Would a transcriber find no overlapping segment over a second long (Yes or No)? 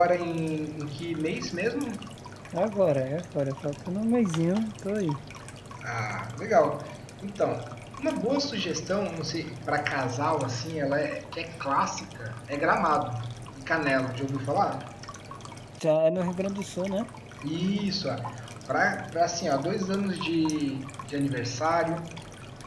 Yes